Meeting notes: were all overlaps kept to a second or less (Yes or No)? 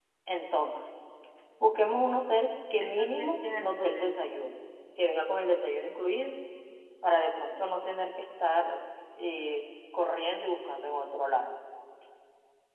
No